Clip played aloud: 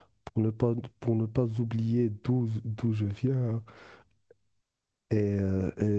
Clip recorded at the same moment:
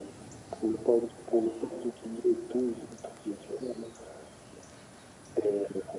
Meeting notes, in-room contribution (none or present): none